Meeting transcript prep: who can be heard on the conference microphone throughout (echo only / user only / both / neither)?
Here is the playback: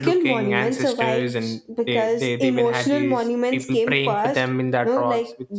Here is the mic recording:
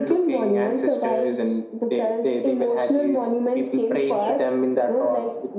both